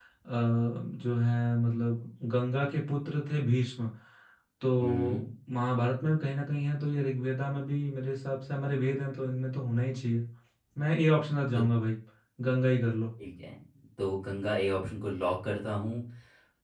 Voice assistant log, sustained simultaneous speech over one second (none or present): none